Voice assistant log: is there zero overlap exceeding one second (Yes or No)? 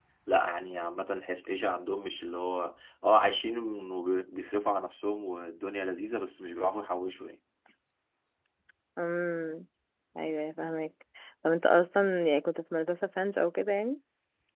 Yes